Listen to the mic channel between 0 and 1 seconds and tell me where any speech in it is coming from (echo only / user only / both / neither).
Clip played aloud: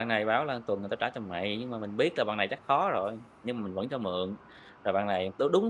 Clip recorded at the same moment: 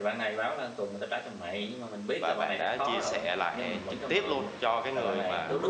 echo only